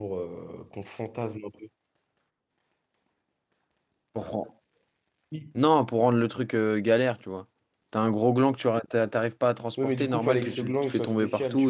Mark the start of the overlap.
9.8 s

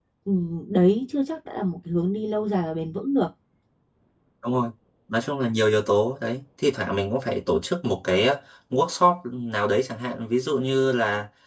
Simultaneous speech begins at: none

